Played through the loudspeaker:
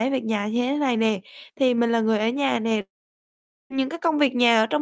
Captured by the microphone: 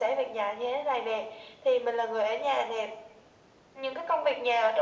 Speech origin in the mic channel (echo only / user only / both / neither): echo only